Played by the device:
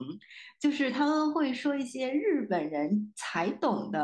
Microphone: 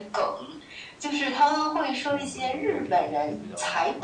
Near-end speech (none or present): present